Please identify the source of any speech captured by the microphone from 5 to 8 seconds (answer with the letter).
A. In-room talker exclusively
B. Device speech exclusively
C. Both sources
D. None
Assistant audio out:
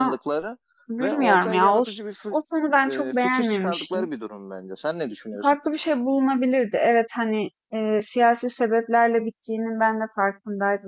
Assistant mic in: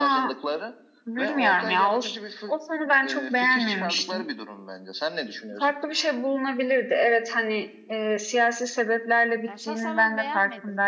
B